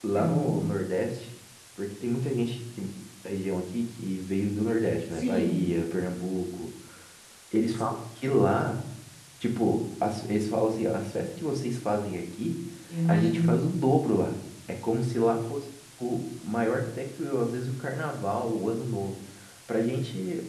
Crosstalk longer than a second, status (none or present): none